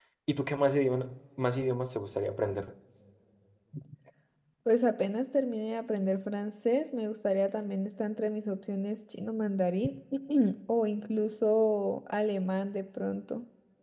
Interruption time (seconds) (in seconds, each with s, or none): none